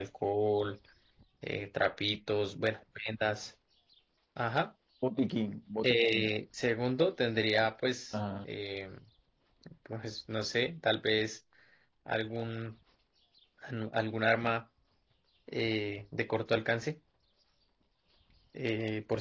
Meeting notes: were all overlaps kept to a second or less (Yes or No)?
Yes